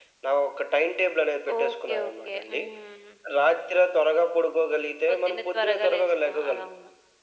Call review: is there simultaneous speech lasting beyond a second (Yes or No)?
Yes